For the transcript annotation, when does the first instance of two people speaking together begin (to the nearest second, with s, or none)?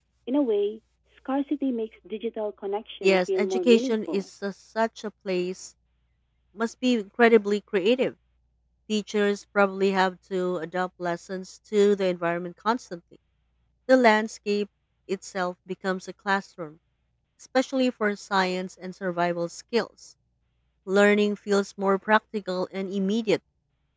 3 s